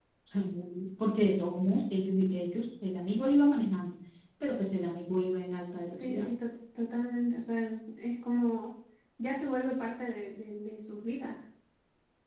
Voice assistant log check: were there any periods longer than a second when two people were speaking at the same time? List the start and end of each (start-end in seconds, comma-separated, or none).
none